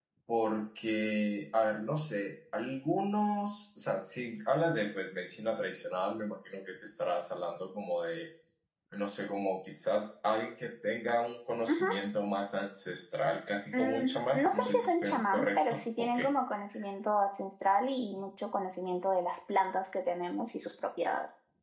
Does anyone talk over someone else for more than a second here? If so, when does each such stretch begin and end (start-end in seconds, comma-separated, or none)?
13.7-16.2